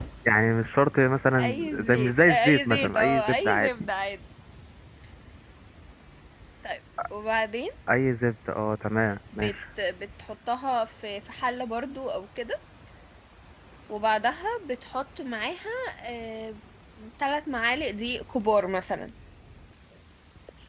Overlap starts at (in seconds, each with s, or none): 1.4 s